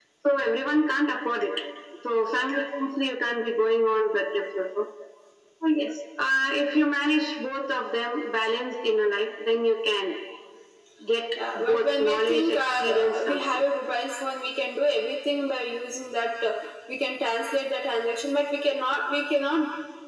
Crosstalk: present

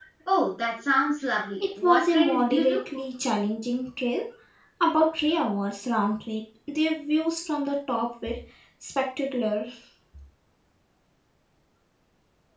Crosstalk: present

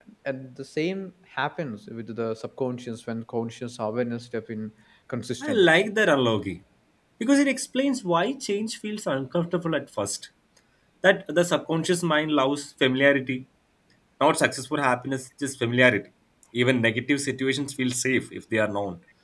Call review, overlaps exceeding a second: none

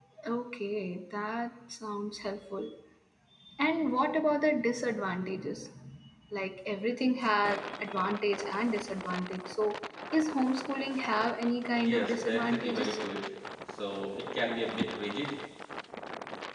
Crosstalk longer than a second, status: present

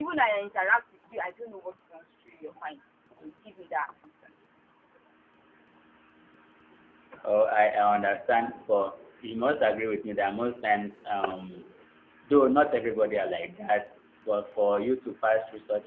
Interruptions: none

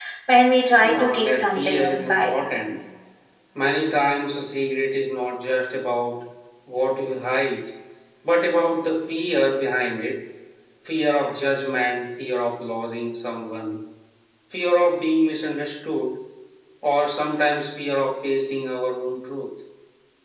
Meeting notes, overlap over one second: present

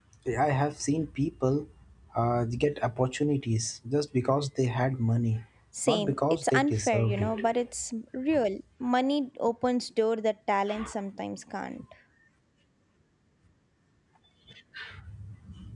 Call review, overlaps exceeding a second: present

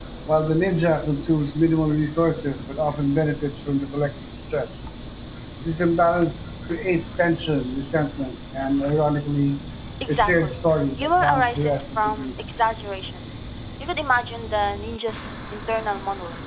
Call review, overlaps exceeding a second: present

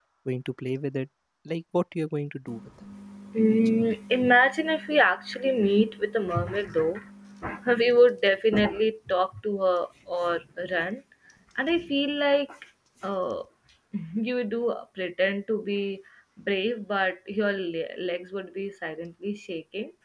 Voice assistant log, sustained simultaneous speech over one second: none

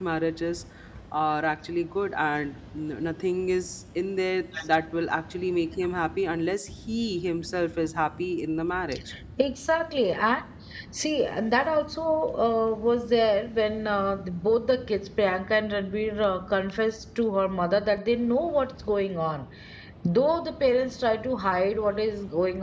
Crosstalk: none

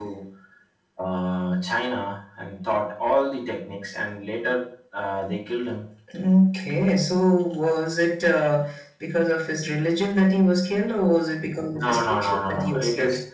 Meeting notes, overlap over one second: present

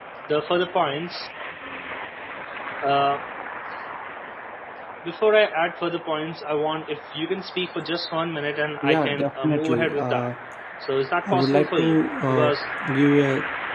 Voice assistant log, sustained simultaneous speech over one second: present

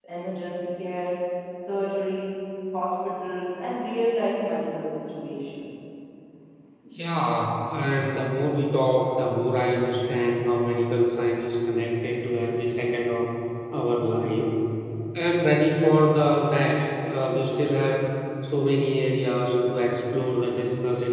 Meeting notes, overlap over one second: none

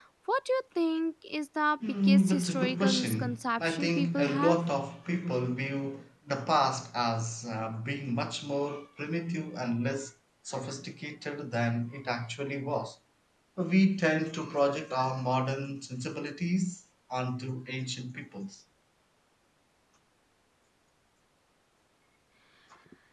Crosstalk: present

